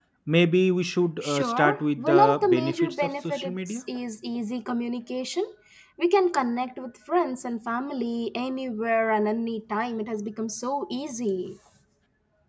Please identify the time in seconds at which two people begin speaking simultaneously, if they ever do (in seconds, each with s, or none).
1.2 s